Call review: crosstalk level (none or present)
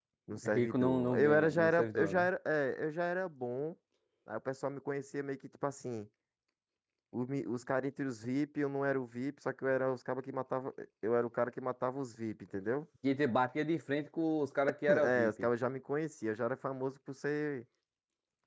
present